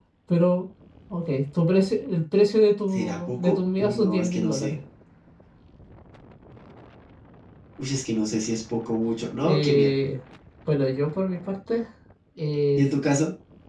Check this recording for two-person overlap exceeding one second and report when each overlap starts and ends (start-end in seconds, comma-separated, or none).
2.9-4.8